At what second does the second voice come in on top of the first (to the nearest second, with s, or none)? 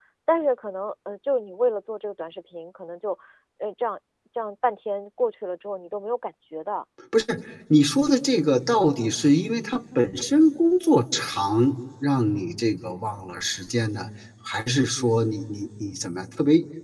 none